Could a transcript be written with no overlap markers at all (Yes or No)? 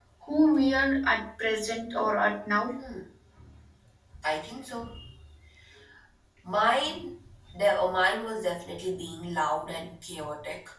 Yes